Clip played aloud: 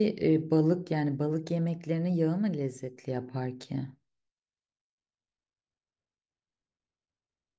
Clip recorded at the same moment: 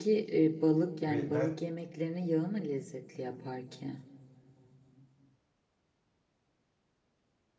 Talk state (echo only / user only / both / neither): both